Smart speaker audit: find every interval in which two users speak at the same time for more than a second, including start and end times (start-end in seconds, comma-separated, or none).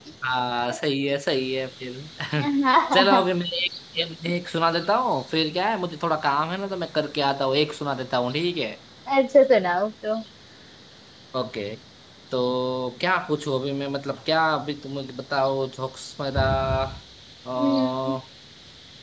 none